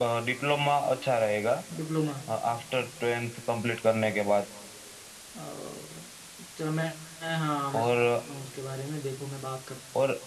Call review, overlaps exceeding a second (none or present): none